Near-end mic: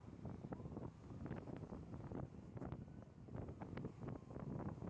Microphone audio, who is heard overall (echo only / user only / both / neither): neither